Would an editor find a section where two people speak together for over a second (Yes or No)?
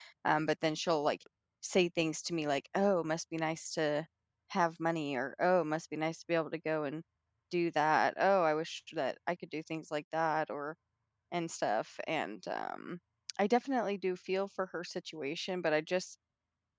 No